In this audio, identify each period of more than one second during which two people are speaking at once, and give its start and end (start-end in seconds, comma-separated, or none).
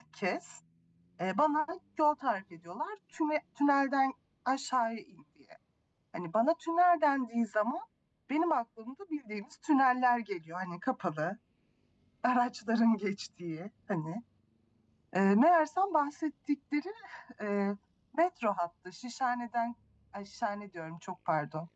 none